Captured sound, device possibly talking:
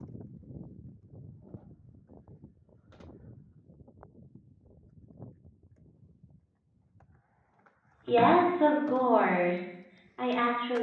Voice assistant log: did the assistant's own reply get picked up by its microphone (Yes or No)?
No